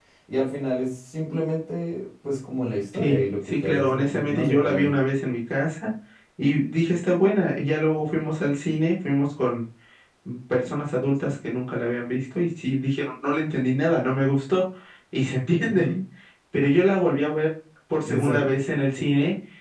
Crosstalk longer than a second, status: present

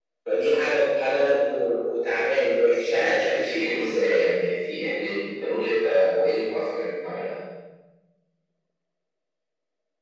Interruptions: present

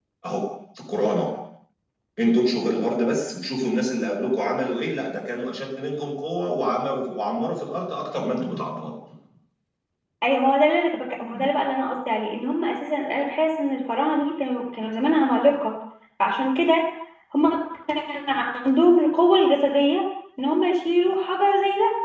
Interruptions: none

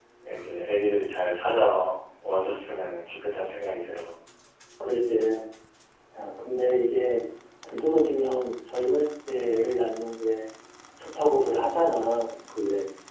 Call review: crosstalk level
none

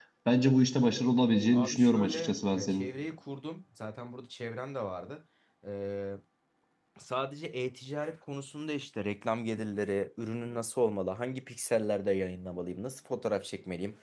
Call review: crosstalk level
present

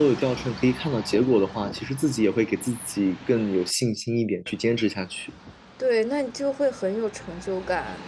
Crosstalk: none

